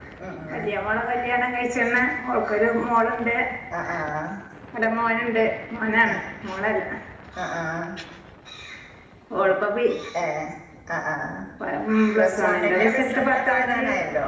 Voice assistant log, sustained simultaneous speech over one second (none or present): present